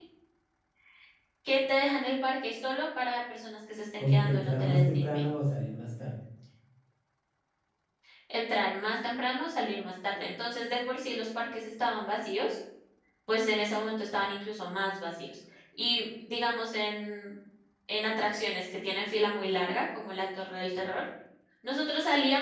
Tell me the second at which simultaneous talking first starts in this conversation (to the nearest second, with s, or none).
4 s